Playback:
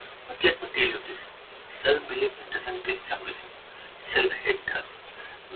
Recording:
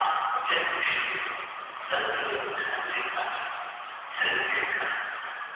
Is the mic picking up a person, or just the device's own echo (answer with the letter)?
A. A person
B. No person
B